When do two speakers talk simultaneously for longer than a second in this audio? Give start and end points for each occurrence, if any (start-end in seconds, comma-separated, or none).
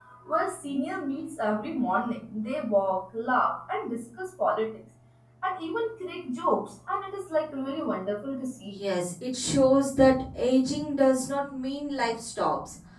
none